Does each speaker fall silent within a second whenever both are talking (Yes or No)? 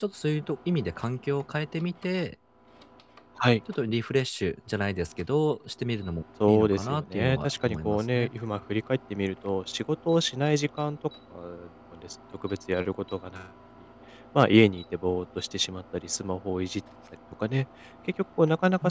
No